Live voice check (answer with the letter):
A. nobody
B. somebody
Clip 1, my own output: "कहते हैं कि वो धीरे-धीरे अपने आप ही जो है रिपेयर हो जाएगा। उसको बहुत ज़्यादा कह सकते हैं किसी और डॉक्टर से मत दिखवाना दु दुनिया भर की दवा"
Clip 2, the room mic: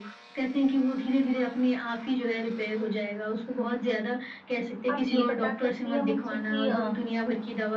B